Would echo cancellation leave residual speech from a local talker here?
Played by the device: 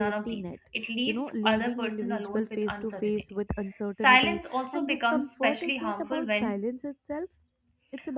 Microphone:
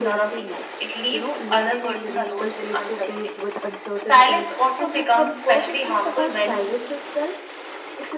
No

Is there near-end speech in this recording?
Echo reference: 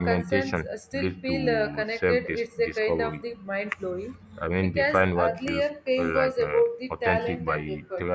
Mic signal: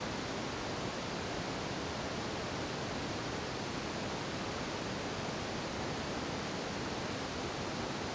No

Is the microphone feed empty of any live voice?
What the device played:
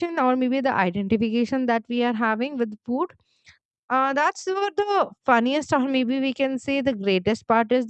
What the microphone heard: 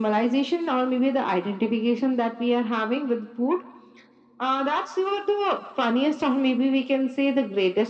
Yes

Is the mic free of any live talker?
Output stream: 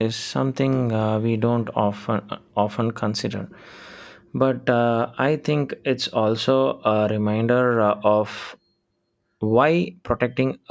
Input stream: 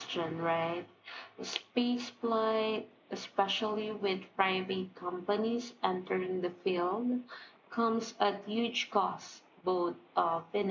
No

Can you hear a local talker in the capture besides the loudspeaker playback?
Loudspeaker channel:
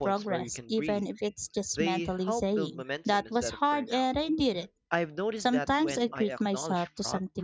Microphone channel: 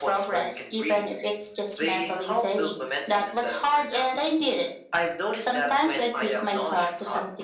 No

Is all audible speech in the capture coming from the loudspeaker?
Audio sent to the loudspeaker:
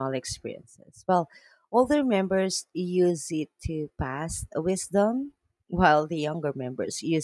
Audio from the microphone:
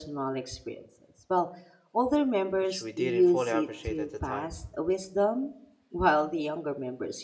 No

